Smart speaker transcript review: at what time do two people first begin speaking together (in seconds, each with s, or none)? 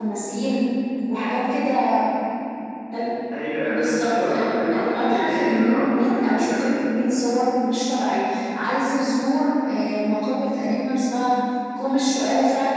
3.7 s